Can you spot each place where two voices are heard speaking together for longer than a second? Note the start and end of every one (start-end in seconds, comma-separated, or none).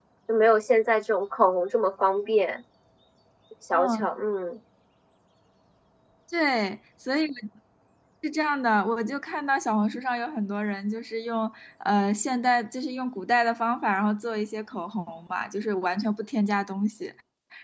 none